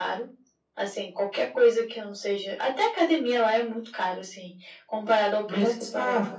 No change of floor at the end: No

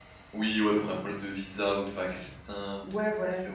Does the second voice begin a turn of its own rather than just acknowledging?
Yes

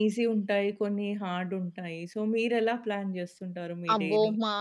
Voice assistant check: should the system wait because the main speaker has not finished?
No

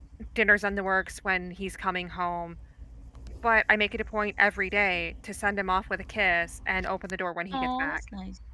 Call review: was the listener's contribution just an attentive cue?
No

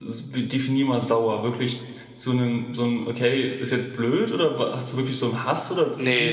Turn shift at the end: Yes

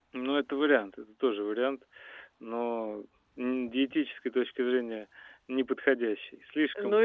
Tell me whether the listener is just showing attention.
No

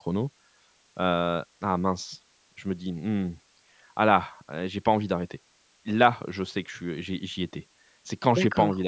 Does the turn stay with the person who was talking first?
Yes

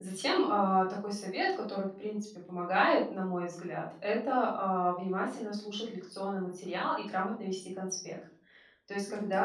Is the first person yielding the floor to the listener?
No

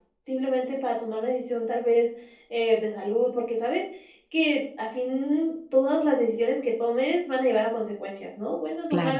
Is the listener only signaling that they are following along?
Yes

